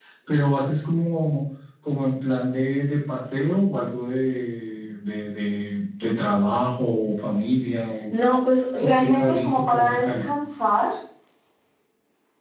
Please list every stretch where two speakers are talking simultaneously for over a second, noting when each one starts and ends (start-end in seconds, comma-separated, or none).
8.8-10.3